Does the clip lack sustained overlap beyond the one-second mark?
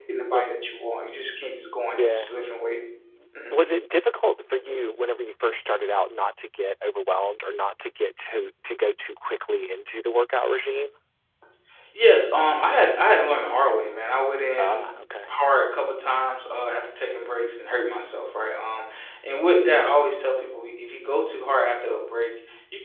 Yes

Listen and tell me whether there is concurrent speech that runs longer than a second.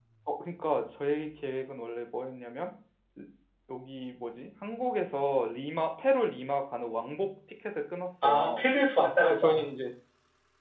No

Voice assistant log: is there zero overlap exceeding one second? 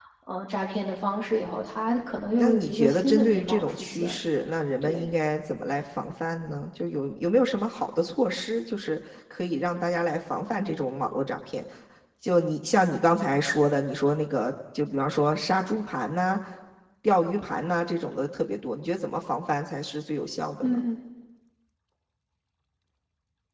No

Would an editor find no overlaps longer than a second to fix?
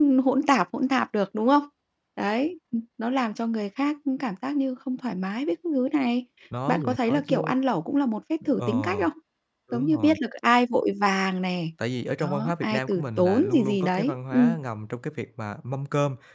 No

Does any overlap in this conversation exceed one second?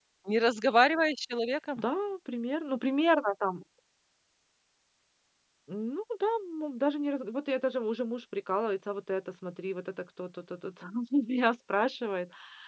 No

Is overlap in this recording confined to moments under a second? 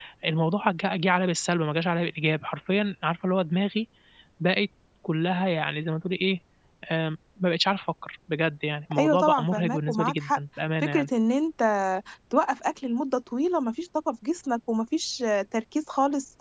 No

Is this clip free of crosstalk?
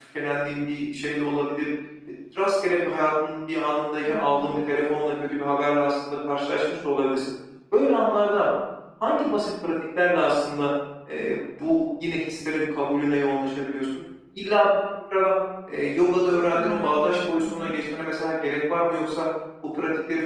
No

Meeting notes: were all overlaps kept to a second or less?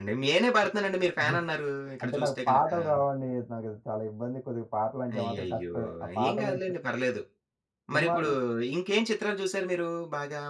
No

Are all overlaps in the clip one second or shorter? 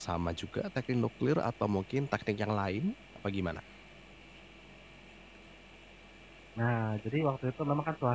Yes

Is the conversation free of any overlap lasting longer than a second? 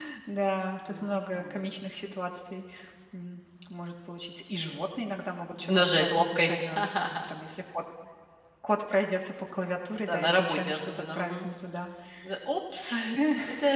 No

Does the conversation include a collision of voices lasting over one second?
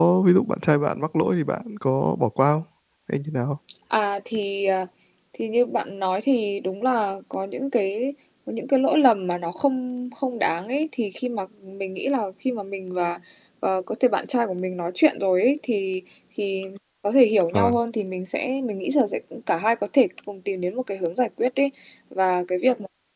No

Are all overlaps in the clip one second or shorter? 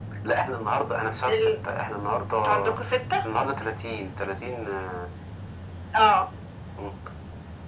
Yes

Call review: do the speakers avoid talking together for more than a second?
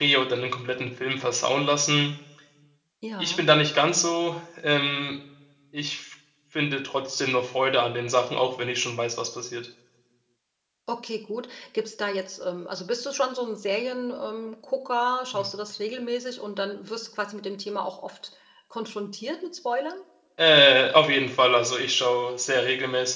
Yes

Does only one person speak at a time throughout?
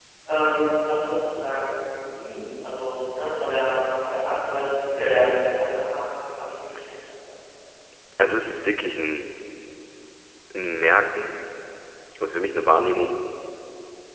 Yes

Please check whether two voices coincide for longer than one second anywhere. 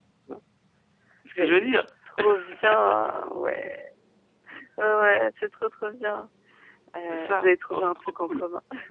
Yes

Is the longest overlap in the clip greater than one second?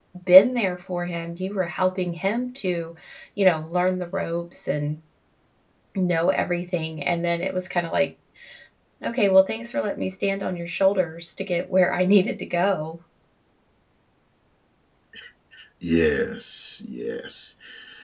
No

